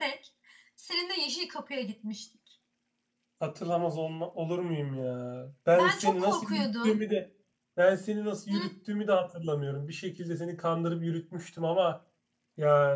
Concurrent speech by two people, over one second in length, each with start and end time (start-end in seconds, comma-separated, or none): 5.7-7.0